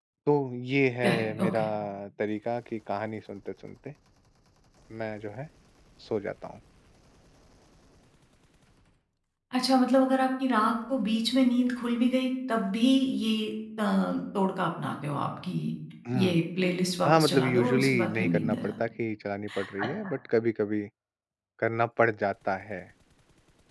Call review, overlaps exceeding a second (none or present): present